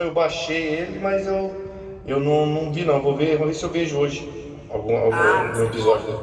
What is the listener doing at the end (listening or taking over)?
taking over